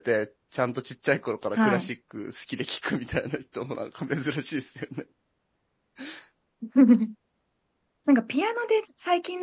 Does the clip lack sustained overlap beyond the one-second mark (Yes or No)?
Yes